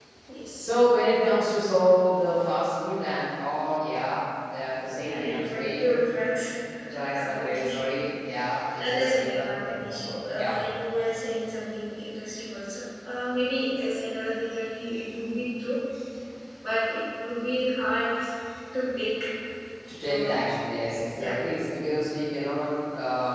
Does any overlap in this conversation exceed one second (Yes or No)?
Yes